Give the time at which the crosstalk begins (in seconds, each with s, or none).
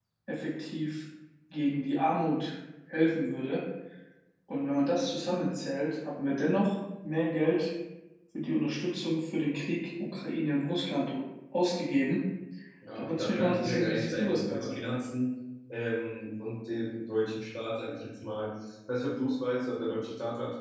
12.9 s